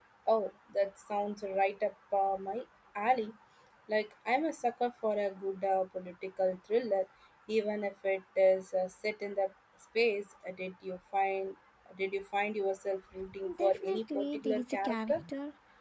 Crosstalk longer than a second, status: present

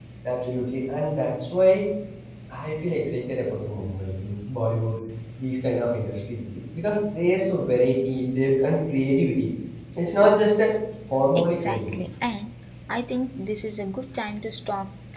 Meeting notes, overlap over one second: none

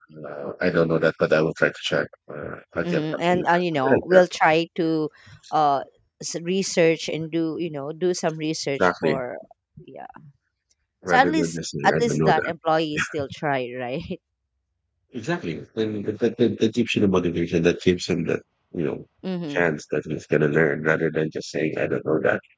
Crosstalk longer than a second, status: present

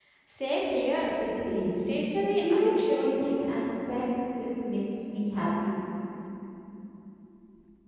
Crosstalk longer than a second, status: present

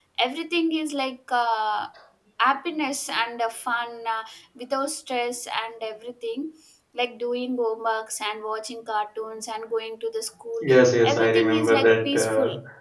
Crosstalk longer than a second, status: present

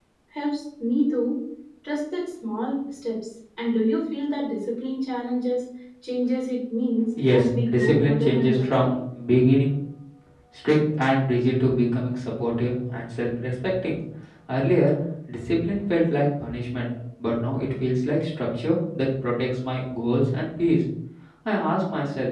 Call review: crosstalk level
present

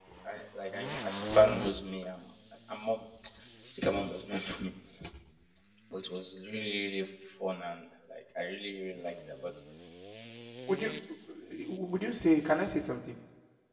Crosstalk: none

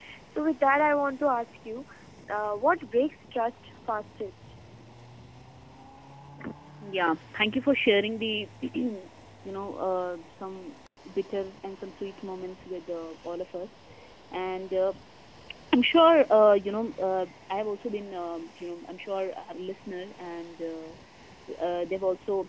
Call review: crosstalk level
none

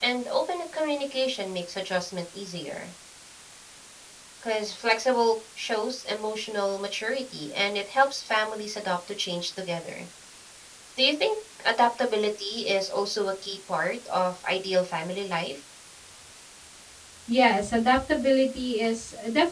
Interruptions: none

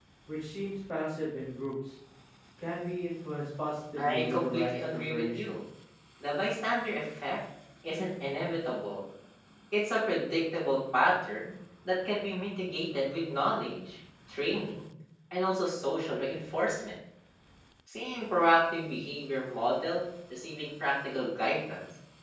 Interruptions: present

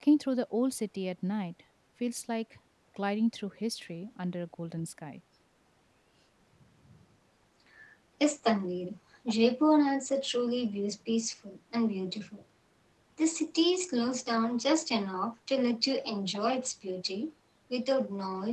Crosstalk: none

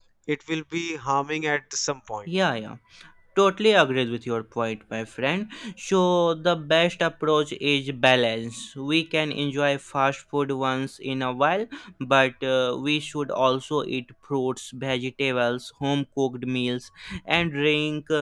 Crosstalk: none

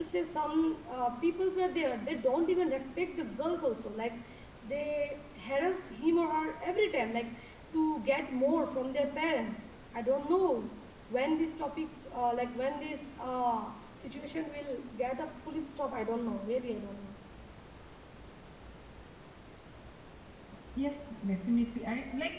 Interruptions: none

